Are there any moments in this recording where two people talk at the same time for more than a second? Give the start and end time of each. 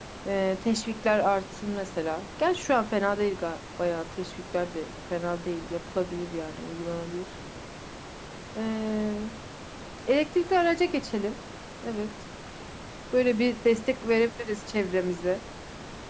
none

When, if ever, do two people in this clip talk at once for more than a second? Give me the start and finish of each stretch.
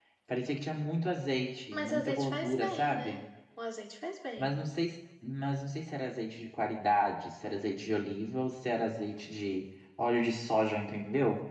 1.7-3.2

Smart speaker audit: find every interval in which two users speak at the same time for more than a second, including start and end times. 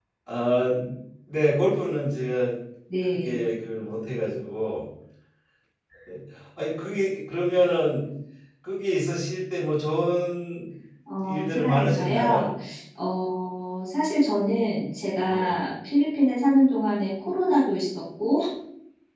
11.2-12.5

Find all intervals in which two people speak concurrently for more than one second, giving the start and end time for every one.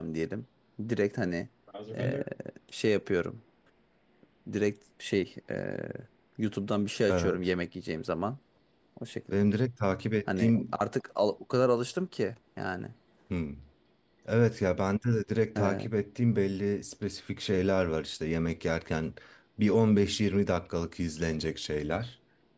none

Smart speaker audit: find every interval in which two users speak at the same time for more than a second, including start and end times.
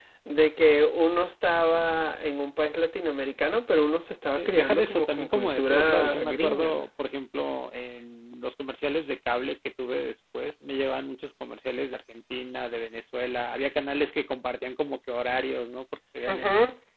4.4-6.9

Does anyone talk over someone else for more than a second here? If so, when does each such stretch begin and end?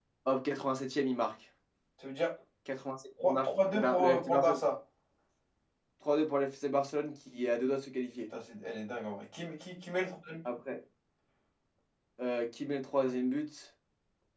3.2-4.6

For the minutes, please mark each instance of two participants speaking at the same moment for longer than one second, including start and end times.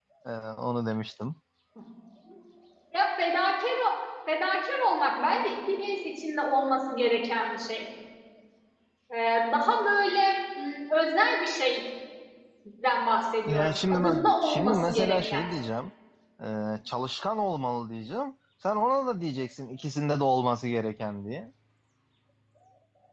13.4-15.4

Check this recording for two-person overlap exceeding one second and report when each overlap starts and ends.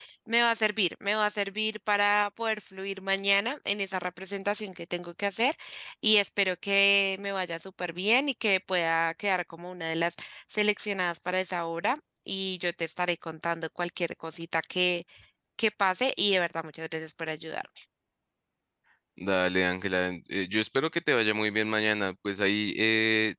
none

